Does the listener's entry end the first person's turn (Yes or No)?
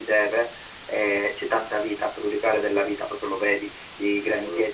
No